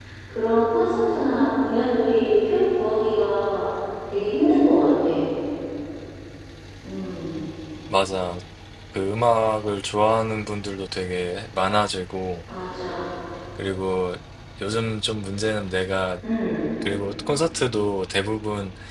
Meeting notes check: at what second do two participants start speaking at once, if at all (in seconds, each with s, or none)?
none